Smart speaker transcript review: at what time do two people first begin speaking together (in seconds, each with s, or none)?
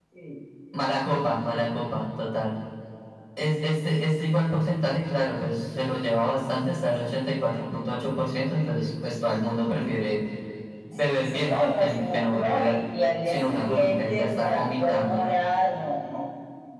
11.1 s